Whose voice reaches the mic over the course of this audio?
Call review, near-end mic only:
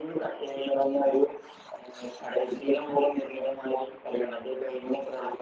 echo only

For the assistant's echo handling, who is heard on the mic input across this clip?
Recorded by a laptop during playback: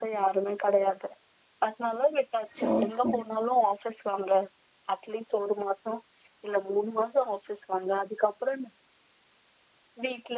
both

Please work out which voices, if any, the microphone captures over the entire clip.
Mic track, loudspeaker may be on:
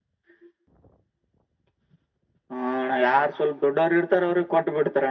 echo only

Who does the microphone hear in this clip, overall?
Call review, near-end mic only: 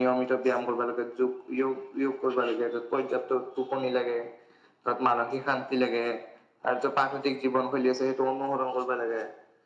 echo only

